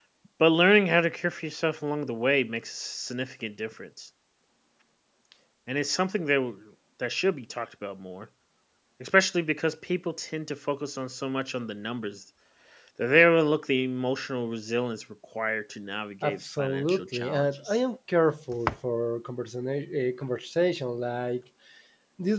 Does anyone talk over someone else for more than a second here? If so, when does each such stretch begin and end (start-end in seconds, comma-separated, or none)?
16.2-17.8